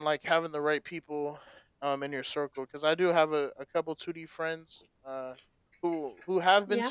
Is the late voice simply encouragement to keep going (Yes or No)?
Yes